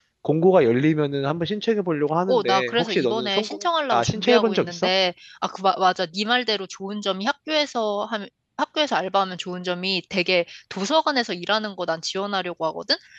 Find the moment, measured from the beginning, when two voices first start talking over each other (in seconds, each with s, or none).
2.3 s